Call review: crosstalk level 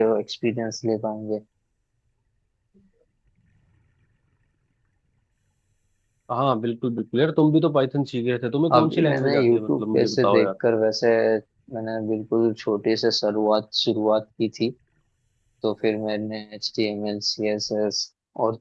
present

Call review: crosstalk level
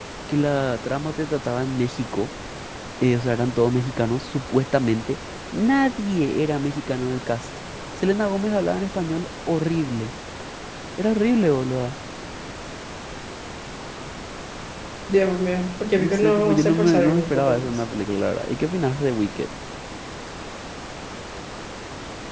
present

